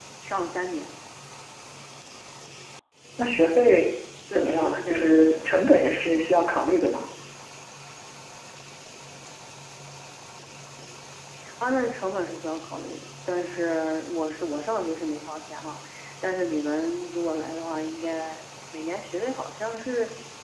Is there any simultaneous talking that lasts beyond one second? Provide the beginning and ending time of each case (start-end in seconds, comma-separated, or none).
4.3-5.7